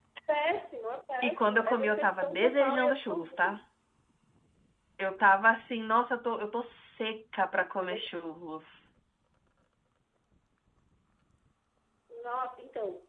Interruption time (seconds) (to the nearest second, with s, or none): 1 s